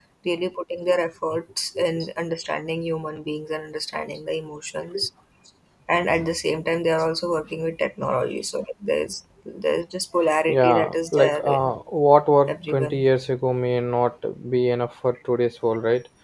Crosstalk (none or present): present